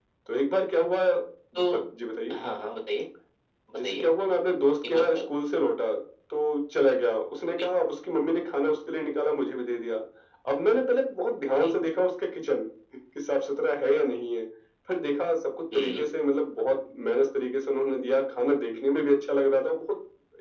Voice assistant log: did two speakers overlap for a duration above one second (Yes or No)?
No